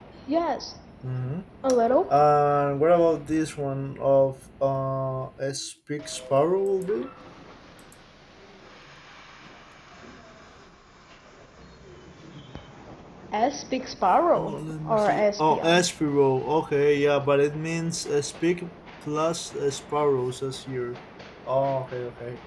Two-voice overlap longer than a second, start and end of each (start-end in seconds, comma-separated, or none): 14.3-15.8